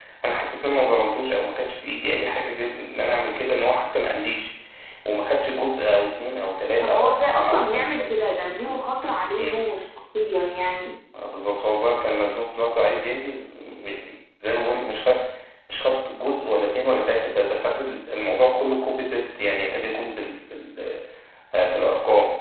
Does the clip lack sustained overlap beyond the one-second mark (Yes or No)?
No